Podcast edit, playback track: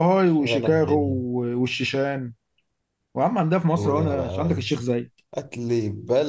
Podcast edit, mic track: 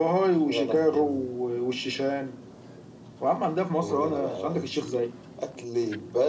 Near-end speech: none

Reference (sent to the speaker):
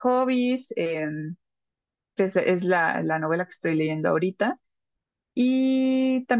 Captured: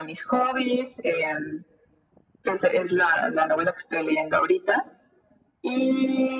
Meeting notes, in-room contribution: none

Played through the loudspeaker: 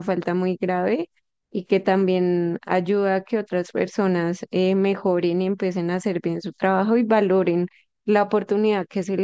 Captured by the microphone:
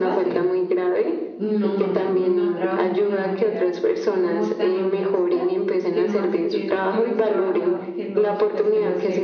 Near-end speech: present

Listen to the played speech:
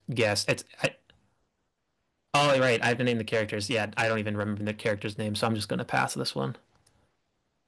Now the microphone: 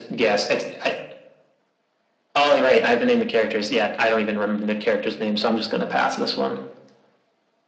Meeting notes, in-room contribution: none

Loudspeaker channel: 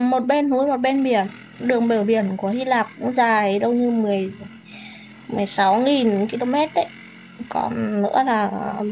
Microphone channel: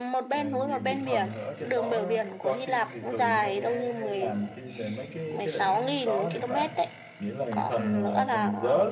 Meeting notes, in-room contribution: present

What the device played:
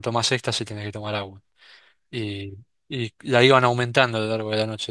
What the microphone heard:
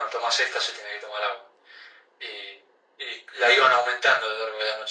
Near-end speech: none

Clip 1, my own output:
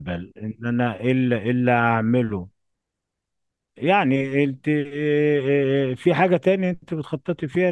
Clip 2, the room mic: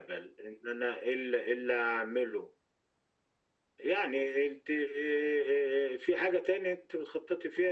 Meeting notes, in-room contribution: none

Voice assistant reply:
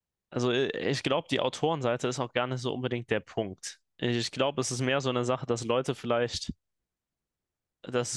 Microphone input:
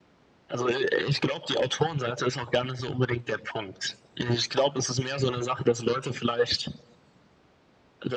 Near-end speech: none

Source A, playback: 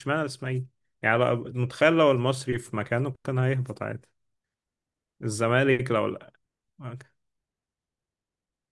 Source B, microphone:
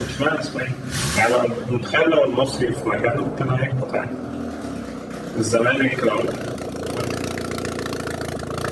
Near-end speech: none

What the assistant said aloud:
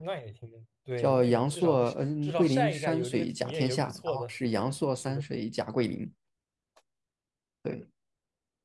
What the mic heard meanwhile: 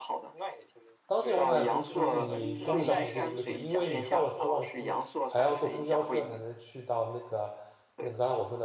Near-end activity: present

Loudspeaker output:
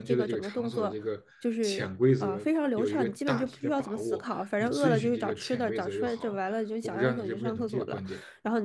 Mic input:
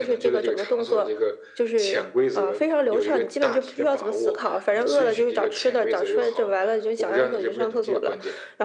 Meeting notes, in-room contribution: none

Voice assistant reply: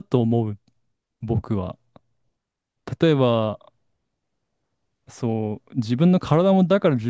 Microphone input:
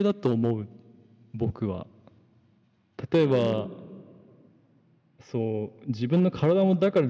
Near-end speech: present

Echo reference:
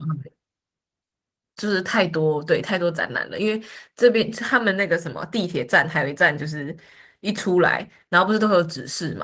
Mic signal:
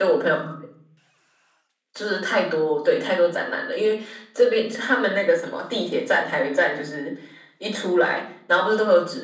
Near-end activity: none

